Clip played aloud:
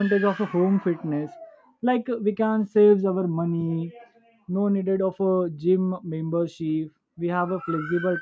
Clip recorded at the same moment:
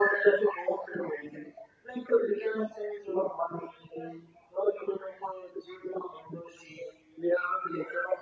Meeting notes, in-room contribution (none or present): none